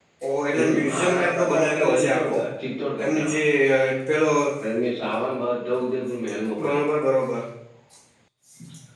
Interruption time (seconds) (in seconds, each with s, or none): 0.5 s